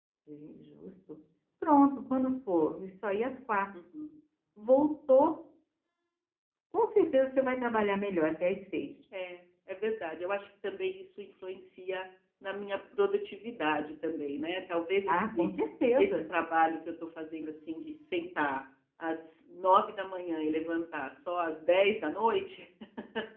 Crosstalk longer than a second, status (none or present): none